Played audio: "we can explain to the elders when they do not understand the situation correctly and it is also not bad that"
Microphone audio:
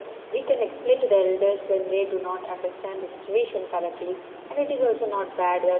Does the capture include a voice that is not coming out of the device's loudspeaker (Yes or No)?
No